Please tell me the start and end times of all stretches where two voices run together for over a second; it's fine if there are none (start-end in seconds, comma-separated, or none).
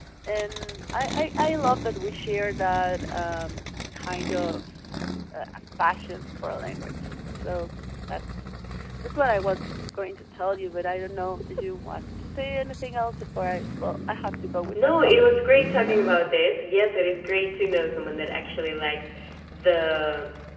14.7-16.0